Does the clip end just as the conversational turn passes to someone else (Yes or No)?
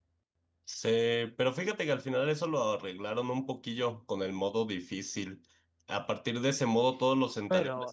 No